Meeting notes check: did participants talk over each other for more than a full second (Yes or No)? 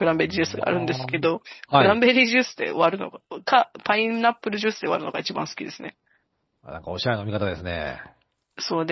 Yes